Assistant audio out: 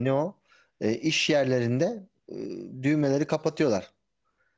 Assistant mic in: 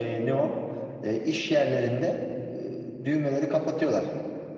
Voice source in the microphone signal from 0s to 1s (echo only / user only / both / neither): echo only